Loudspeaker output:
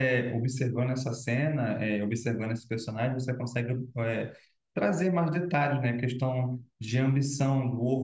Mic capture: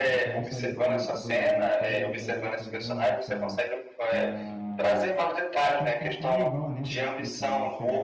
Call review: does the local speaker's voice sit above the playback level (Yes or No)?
No